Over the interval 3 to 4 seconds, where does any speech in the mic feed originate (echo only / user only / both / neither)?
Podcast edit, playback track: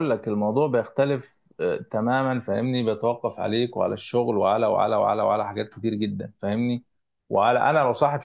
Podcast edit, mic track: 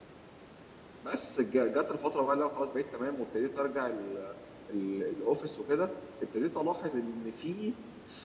user only